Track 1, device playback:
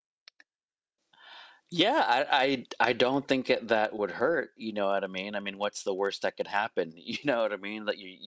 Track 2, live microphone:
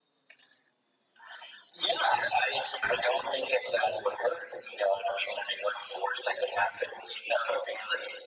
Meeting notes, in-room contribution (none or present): none